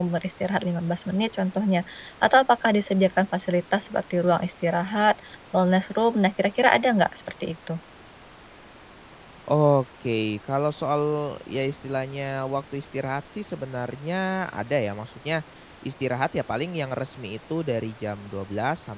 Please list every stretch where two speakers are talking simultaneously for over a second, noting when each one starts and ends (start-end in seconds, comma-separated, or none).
none